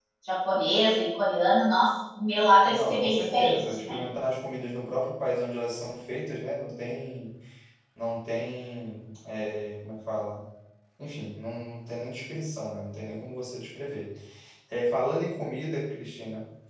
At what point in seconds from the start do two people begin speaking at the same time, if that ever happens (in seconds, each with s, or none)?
2.6 s